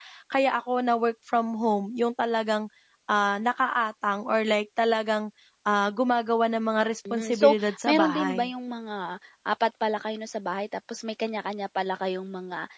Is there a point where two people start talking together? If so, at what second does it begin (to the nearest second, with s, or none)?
7 s